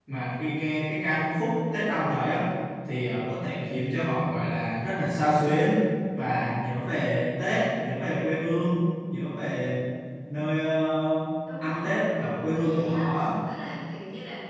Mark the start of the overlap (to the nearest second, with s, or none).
11 s